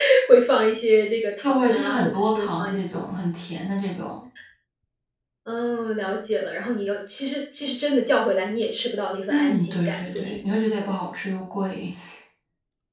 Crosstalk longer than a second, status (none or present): present